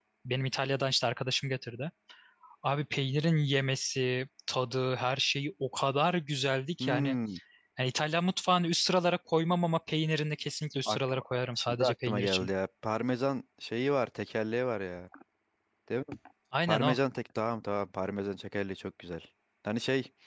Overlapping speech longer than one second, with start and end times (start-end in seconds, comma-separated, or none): 10.9-12.5